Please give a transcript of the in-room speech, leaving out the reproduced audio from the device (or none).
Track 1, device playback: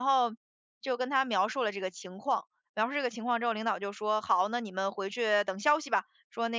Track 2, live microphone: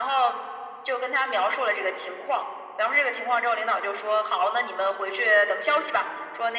none